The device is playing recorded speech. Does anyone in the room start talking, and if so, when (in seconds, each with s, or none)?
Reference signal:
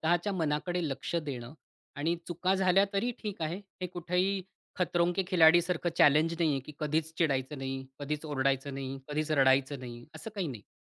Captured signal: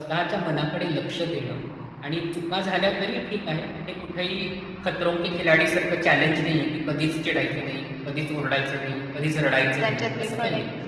9.4 s